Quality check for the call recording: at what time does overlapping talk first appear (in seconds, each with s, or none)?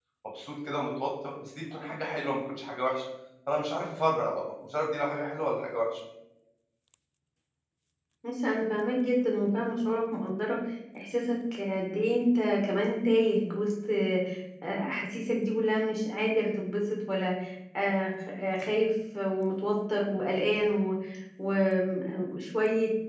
none